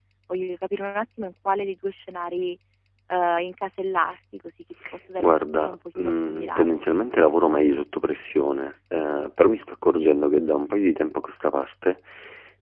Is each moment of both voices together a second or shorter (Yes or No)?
No